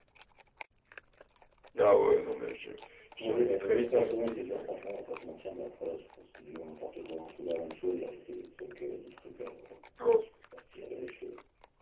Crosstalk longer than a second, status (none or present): present